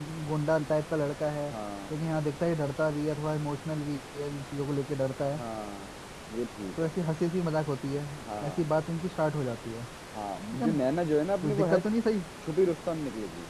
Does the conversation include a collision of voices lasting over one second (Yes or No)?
No